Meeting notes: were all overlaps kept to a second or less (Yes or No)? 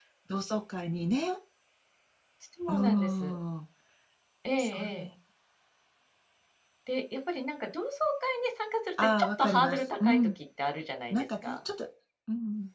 No